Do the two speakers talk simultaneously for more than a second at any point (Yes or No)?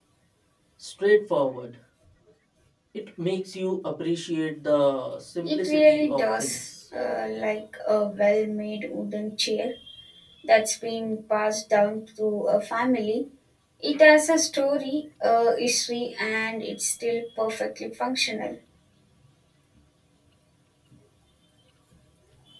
Yes